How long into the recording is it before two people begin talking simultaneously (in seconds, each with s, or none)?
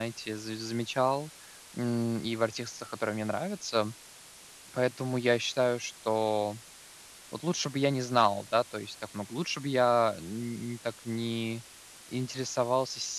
none